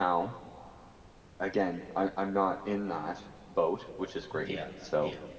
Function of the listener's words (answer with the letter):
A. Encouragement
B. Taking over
A